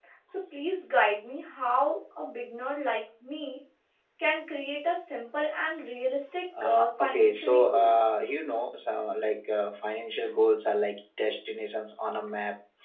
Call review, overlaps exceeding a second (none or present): present